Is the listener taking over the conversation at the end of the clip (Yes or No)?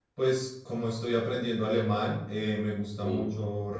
No